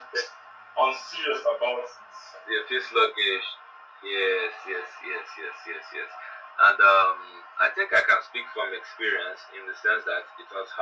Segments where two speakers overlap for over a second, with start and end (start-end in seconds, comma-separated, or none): none